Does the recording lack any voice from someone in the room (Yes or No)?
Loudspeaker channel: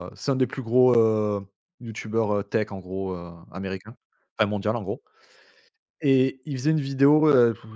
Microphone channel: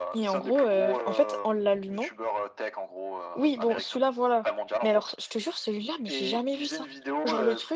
No